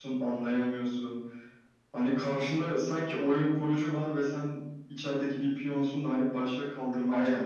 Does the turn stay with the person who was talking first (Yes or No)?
No